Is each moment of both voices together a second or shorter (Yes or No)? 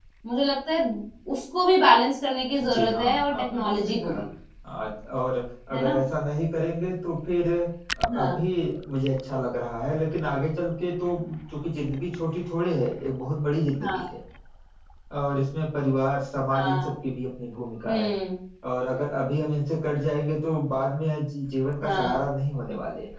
No